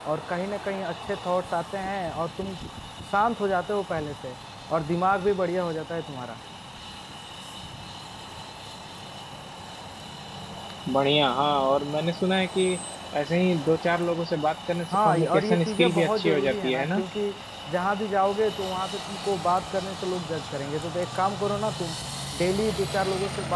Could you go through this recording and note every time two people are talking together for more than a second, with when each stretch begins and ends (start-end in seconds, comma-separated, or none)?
15.0-17.0